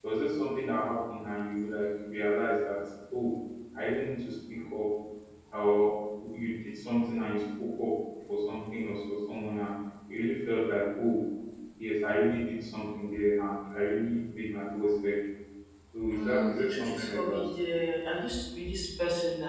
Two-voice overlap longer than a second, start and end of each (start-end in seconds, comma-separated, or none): 16.1-17.4